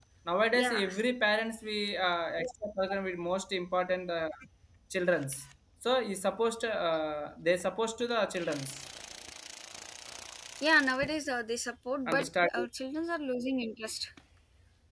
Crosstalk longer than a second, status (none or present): none